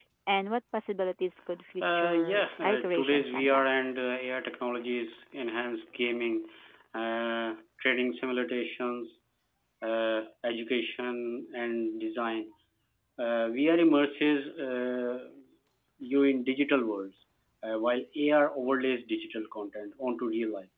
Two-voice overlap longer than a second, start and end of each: 1.8-3.6

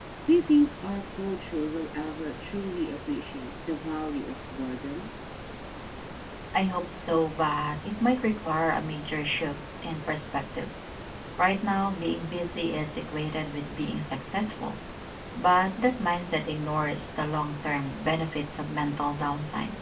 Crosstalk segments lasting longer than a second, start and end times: none

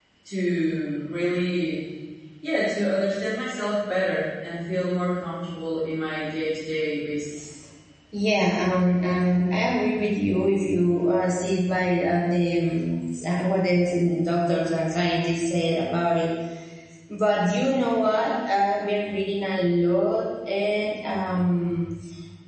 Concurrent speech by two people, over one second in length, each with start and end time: none

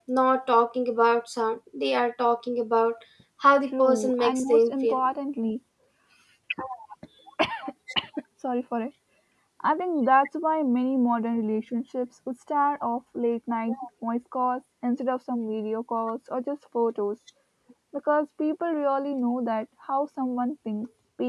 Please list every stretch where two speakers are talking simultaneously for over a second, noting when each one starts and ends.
3.8-5.0

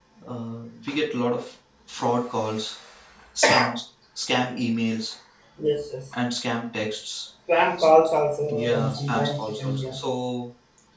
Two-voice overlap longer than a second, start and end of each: 8.6-9.9

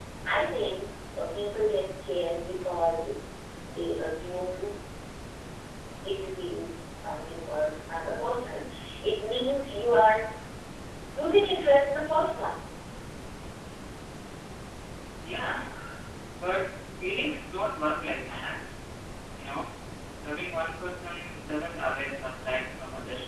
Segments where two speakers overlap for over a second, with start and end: none

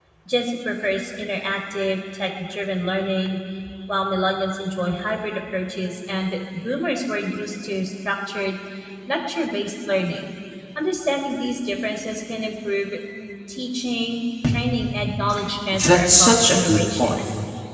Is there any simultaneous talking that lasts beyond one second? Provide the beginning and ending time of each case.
15.7-17.2

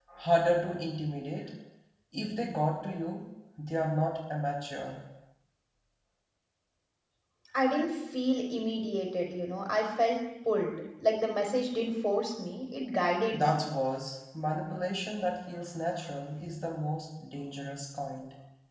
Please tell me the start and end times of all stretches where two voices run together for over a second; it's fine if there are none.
none

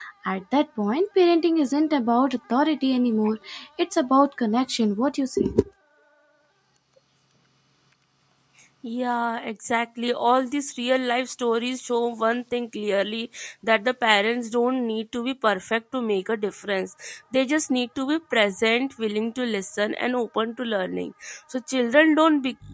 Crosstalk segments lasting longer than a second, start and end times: none

